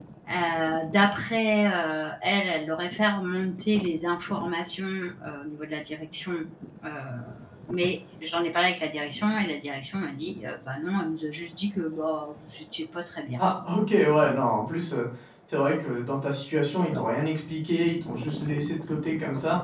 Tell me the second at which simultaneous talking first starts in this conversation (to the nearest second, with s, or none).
none